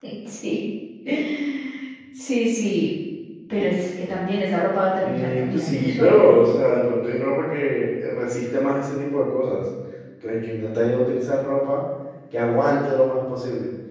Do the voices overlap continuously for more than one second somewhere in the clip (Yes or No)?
Yes